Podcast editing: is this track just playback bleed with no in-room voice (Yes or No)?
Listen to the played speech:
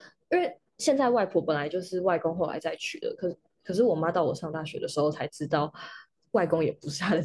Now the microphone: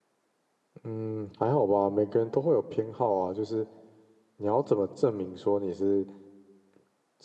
No